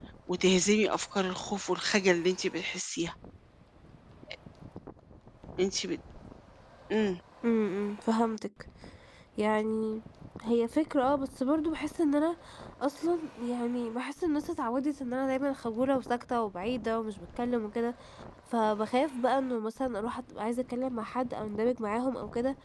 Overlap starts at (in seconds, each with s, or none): none